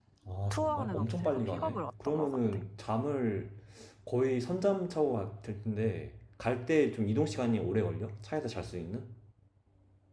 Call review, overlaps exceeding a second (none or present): present